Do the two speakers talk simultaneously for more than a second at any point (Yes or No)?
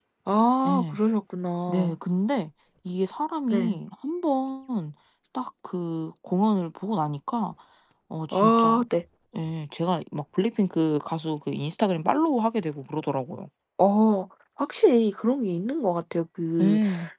No